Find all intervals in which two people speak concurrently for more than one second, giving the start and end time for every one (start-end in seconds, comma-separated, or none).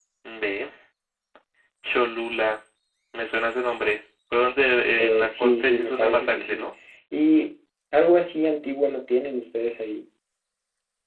5.0-6.7